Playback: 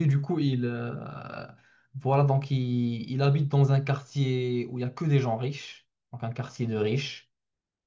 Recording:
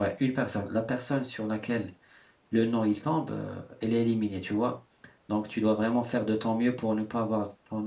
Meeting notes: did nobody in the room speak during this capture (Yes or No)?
No